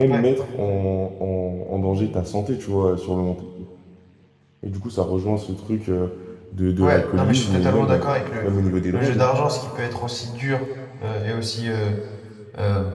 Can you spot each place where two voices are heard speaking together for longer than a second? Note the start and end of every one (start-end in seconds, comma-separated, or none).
6.8-8.1